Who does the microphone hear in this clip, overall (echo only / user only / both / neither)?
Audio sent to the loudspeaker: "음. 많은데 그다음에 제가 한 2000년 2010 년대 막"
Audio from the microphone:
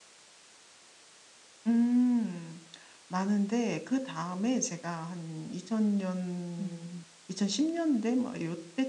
both